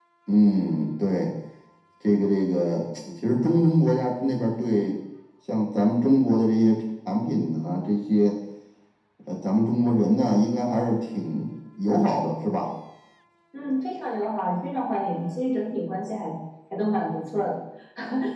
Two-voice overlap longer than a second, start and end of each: none

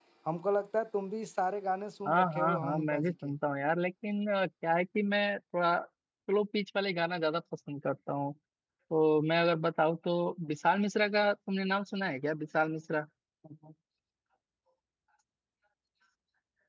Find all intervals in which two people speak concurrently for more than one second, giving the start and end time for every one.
2.1-3.3

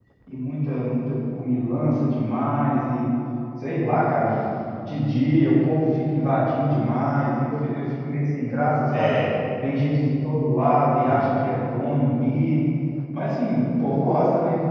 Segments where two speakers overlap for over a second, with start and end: none

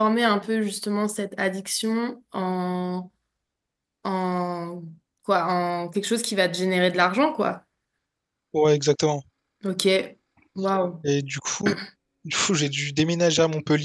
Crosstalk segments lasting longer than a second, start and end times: none

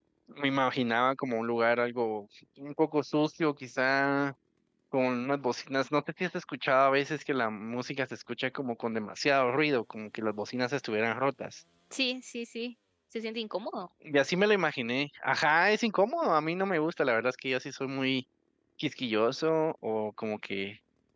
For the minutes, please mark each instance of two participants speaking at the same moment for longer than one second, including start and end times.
none

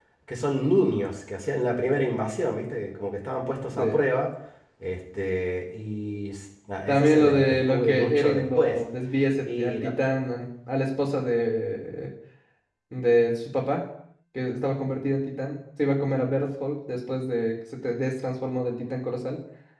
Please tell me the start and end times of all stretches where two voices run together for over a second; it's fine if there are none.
6.9-8.8

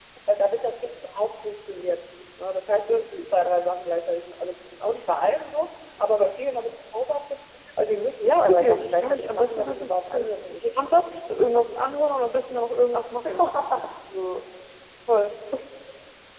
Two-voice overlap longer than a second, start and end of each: 8.2-10.2

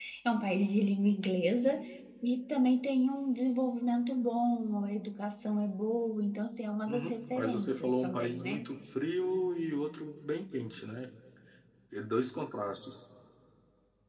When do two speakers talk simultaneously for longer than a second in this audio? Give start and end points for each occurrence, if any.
6.9-8.7

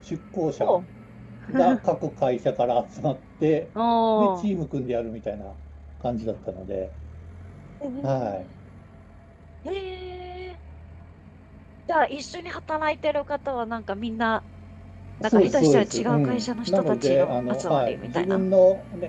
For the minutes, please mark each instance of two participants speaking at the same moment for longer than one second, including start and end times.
15.2-18.4

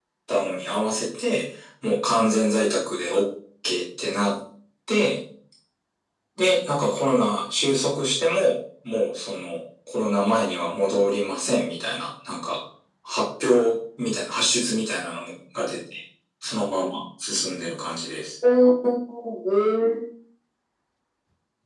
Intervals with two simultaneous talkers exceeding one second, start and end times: none

